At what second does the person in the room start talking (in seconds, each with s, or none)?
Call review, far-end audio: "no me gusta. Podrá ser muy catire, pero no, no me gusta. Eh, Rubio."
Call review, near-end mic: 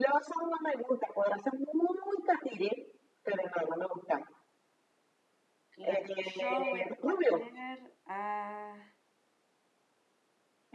5.7 s